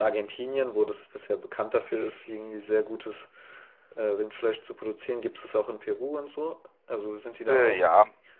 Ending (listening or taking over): taking over